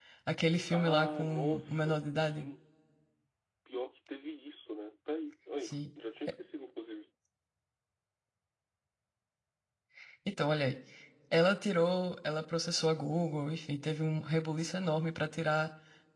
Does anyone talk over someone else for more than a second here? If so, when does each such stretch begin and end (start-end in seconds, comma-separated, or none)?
0.7-2.5